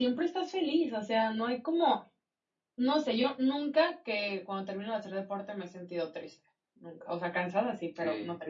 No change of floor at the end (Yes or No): No